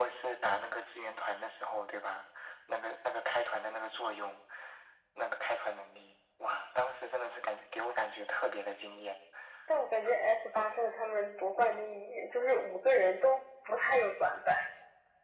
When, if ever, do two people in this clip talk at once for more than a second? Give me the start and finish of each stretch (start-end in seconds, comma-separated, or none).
none